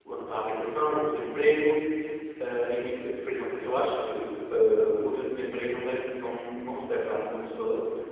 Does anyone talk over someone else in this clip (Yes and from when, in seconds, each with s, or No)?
No